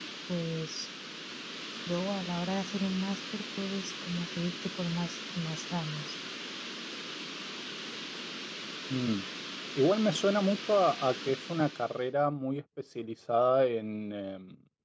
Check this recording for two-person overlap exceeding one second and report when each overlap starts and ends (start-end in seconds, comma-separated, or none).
none